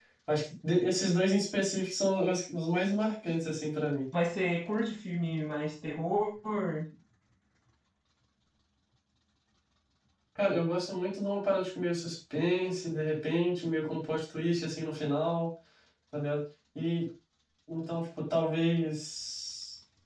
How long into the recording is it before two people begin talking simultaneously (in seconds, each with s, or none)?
none